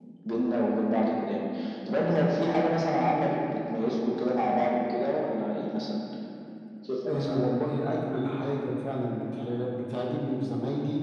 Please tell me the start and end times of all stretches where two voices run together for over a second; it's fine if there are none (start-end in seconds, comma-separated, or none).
none